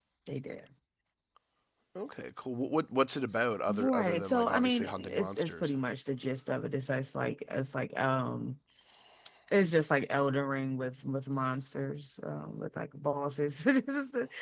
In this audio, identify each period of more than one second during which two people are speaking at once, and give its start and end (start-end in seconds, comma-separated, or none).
3.7-5.7